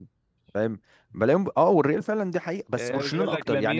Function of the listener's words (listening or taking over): taking over